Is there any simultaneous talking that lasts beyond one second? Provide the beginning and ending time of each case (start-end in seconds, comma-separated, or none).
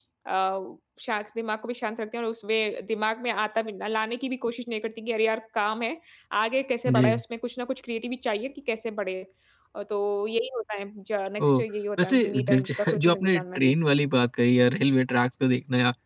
12.0-13.8